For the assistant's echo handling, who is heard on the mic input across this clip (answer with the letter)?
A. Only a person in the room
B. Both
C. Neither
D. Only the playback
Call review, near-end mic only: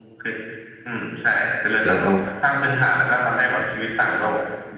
B